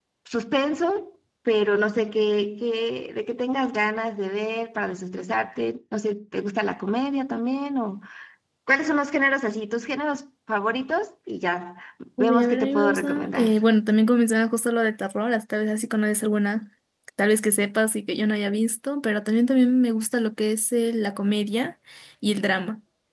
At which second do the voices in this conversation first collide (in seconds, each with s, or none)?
12.2 s